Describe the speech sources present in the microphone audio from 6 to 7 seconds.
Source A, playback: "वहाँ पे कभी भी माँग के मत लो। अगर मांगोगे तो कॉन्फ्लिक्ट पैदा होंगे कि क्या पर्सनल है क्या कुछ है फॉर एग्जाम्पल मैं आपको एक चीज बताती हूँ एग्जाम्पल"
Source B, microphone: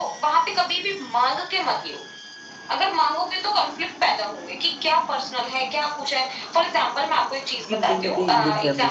echo only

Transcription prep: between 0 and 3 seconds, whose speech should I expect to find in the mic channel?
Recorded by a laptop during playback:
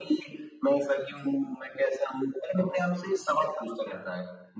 echo only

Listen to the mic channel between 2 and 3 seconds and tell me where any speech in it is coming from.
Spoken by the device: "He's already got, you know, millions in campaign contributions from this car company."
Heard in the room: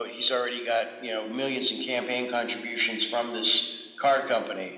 echo only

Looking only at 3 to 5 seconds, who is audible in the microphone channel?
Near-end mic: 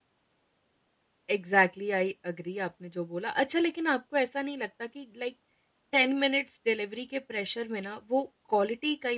user only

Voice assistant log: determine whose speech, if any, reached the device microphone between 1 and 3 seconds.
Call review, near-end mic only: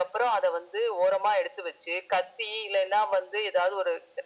echo only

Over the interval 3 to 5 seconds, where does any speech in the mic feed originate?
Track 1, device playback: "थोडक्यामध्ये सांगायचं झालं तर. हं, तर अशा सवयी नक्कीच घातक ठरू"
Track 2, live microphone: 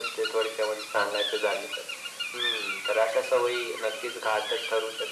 echo only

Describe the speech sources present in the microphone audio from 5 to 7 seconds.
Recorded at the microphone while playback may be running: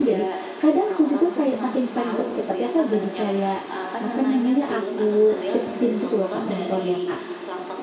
both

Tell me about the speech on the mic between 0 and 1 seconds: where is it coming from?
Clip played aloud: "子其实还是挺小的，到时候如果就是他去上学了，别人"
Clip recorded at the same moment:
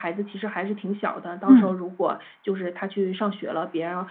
echo only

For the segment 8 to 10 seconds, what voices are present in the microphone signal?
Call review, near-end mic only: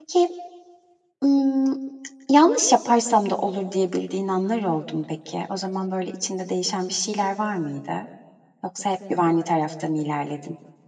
user only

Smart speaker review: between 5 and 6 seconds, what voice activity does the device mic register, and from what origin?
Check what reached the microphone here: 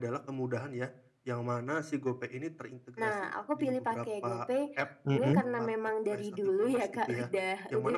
both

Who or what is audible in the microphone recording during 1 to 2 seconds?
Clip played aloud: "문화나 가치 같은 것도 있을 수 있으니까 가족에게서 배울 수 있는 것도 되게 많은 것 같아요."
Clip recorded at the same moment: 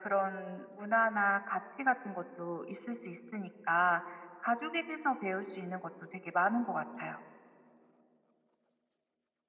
echo only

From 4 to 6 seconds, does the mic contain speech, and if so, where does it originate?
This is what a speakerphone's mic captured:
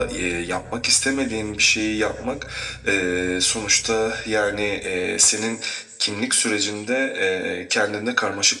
echo only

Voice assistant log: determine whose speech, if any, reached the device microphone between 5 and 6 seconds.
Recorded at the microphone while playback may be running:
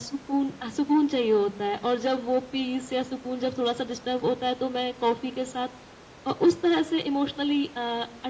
echo only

